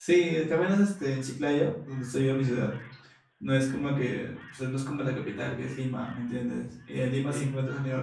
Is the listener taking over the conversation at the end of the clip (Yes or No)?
No